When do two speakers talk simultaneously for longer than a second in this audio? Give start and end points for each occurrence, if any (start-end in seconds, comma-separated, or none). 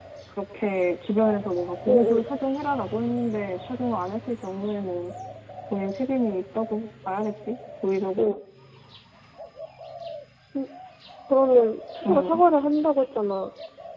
none